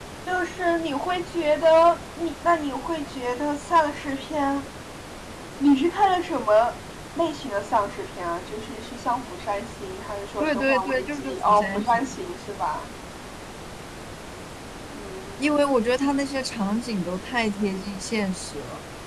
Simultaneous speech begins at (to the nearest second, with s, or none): 10 s